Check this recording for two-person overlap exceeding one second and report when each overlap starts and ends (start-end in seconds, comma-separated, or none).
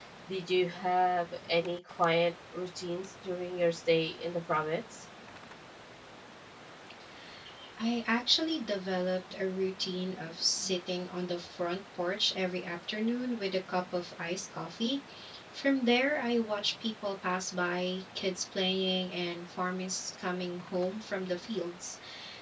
none